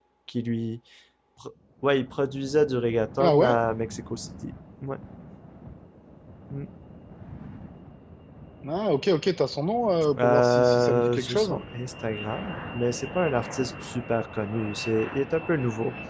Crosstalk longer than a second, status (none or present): present